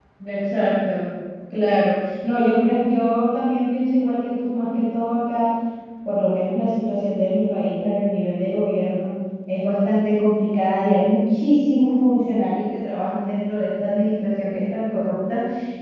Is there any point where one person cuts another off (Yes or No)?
No